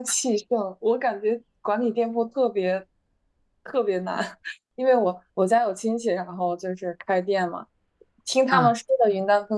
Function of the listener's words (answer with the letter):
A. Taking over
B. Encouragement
B